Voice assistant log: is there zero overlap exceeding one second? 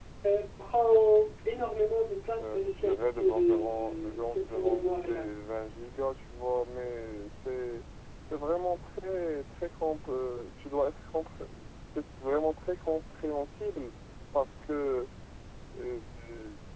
No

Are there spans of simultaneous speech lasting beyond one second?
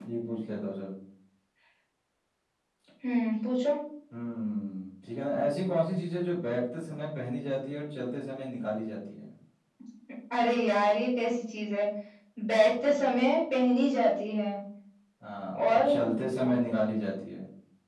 No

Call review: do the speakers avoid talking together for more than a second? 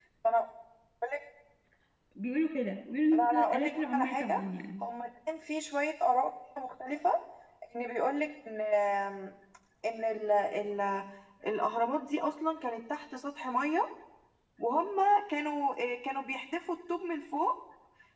No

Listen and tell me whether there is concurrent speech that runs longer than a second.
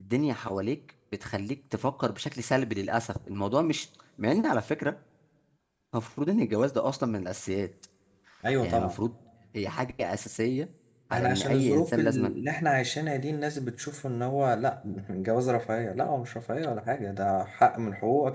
Yes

